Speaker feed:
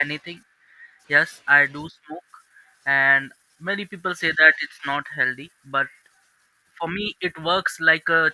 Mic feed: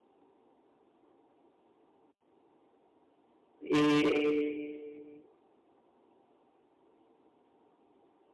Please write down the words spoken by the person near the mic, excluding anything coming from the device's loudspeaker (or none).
eh,